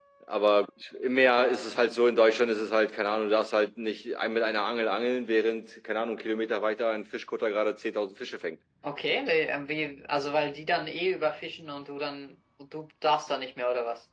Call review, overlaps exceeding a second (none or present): none